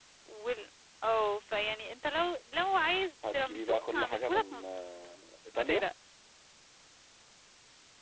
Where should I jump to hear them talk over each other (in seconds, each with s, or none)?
3.3 s